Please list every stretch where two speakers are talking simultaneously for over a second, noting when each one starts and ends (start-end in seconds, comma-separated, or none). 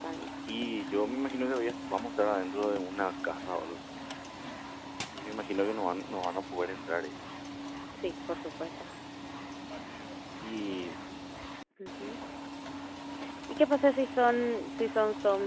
none